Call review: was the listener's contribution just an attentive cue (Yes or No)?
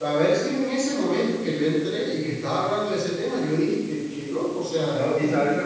No